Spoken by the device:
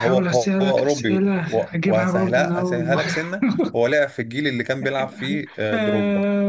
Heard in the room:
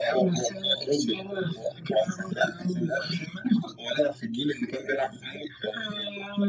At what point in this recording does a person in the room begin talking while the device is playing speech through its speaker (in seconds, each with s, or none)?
none